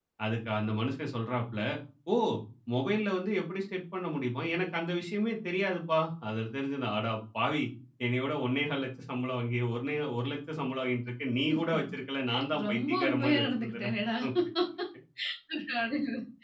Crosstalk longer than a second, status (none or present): present